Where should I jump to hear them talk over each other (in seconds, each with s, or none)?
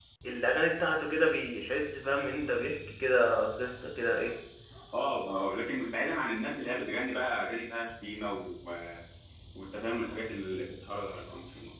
none